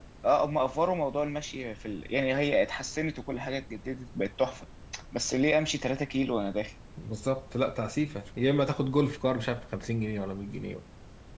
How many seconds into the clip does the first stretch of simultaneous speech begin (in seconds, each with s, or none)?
none